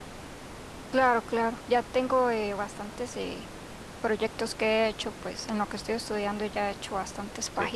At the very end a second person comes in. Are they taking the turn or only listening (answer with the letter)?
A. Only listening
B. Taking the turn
A